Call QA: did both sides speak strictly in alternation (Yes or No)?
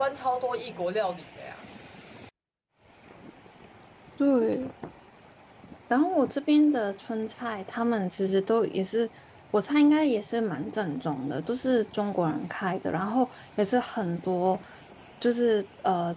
Yes